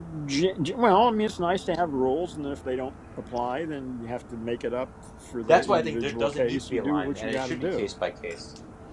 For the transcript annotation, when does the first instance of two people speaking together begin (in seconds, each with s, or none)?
5.5 s